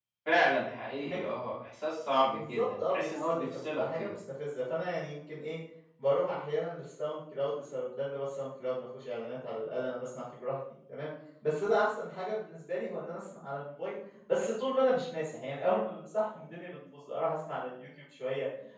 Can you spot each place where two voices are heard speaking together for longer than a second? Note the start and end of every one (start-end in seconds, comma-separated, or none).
2.3-4.1